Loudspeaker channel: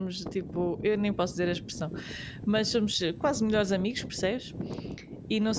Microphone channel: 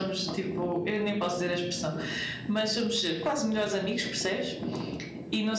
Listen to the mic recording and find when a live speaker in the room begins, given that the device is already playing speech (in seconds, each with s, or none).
none